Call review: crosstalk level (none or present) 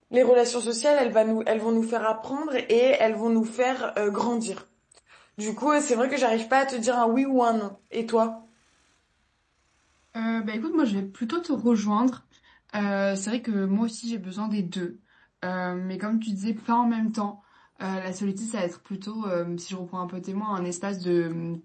none